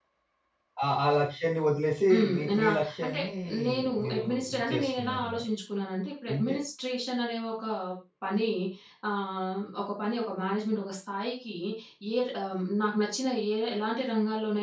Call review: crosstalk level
present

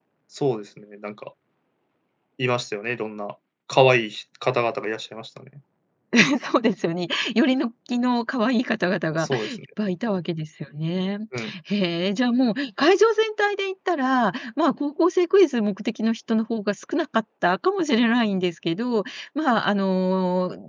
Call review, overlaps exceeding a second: none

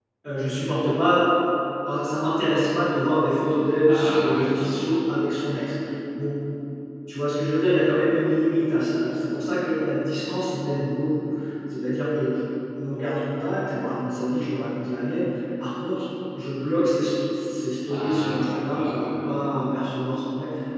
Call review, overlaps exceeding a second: present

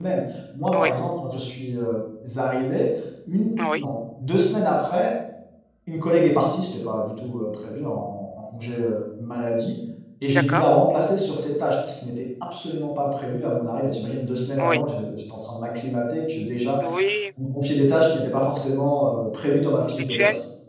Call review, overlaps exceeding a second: none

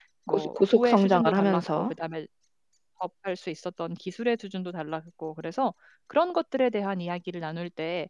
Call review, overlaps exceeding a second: present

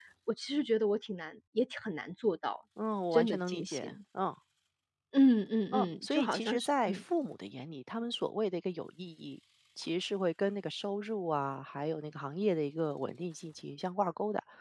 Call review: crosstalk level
present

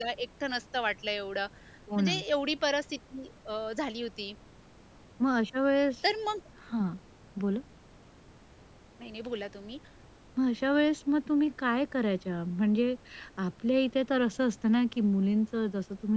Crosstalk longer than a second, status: none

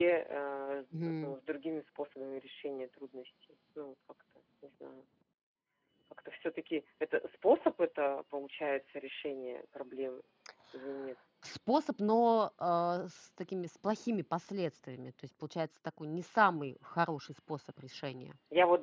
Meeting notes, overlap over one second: none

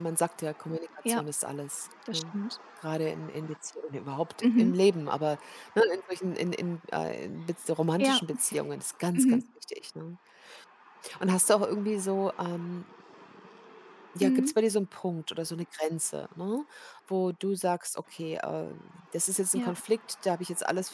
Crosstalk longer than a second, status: none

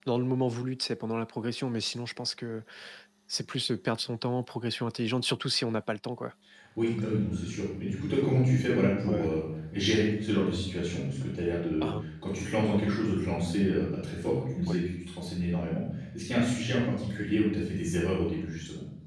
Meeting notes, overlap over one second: none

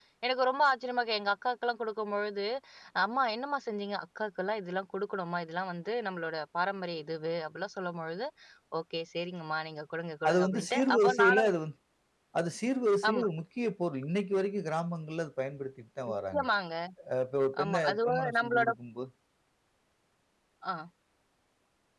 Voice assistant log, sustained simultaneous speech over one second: present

